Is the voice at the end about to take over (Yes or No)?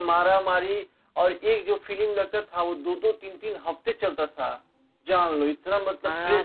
Yes